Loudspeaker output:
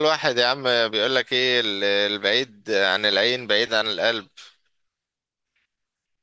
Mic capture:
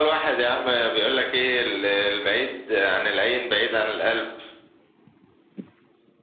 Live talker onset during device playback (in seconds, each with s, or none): none